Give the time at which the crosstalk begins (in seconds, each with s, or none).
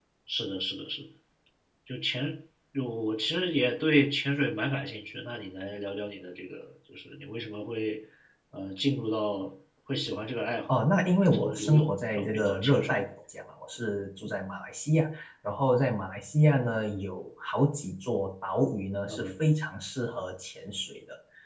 11.3 s